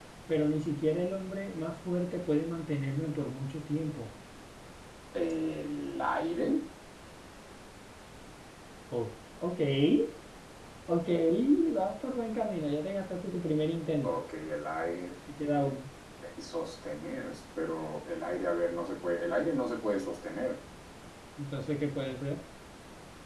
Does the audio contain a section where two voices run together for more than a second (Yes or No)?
No